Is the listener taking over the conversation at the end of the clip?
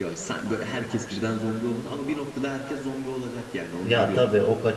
Yes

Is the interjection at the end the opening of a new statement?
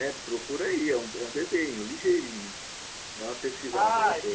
Yes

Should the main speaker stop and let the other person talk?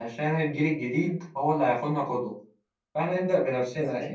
No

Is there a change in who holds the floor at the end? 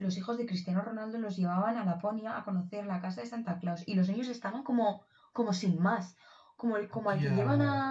No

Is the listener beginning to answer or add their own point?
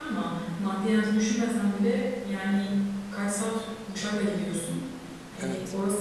No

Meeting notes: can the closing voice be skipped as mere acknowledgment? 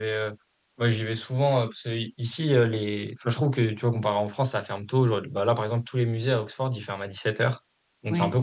Yes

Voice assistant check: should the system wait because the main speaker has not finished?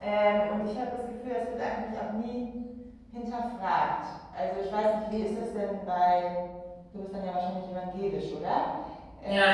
No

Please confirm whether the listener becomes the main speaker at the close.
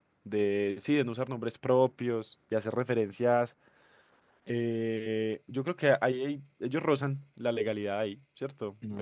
Yes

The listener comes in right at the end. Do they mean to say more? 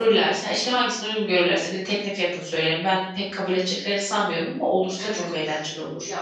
Yes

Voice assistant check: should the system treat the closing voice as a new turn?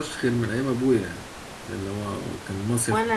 Yes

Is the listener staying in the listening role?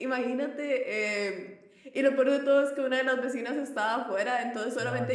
Yes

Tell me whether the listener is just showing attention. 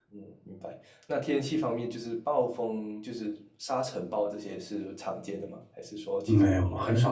No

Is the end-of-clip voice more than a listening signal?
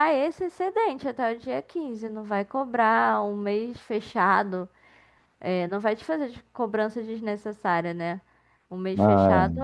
No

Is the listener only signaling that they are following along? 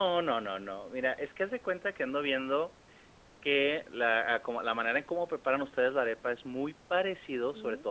Yes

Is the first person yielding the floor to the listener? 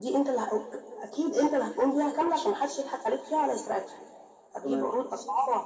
No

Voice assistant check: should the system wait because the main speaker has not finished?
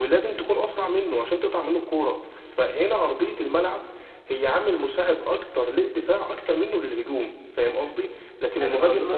No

